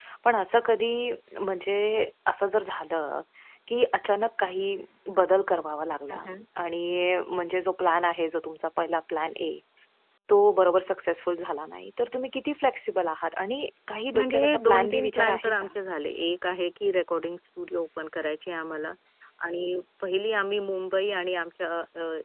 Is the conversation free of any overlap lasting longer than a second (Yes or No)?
No